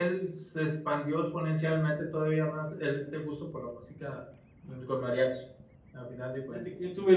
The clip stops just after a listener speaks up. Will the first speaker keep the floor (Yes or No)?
No